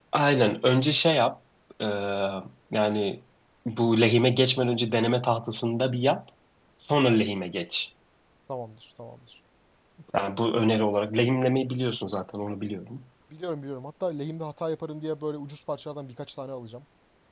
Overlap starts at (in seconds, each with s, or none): none